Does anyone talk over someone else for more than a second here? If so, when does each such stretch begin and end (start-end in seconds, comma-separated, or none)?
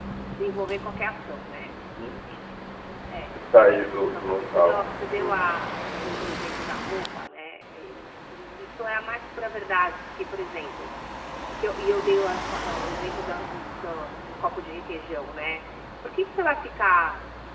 4.0-5.5